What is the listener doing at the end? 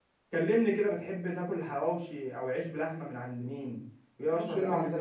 taking over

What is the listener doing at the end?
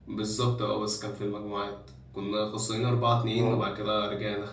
listening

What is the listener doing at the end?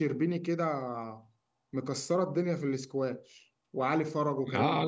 taking over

